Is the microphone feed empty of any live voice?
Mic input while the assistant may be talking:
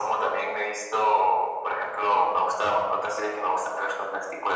Yes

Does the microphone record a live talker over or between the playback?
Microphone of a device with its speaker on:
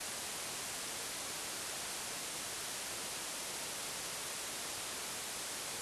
No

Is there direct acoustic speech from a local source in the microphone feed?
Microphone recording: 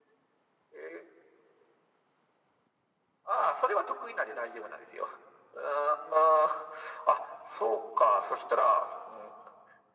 No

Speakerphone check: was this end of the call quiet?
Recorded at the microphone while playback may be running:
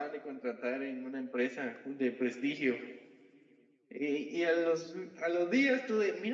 Yes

